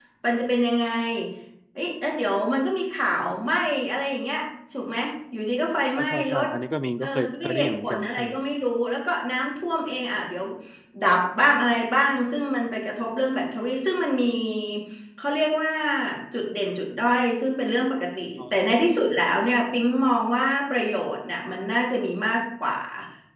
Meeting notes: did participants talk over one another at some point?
Yes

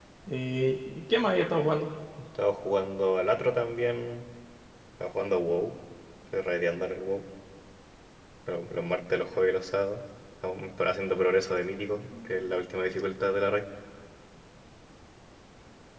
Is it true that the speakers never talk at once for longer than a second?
Yes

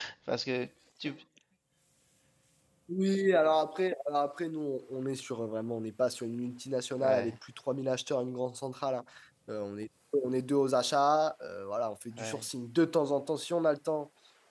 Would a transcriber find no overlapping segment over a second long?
Yes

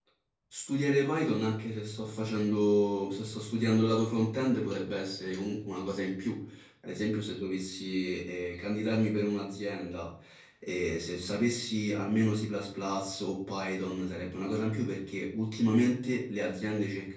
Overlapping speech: No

